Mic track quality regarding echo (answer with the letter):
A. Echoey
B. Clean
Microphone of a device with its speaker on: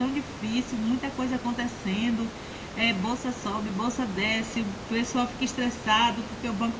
B